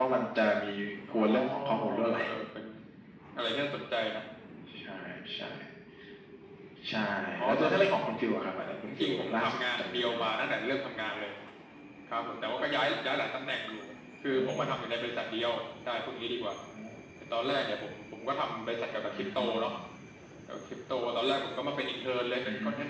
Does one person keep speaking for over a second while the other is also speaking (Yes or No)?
Yes